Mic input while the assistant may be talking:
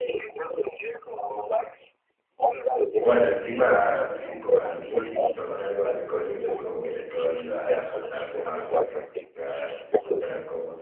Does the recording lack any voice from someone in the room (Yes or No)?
No